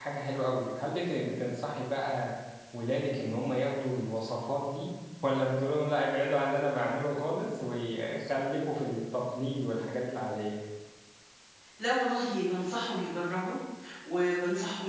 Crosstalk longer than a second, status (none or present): none